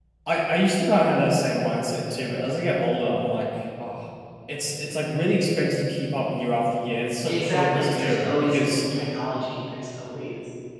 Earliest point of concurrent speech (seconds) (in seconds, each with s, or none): 7.3 s